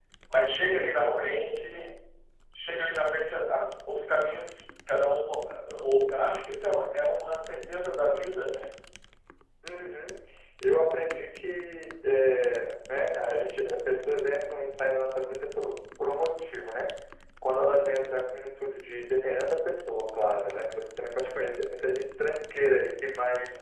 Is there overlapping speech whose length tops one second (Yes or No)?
Yes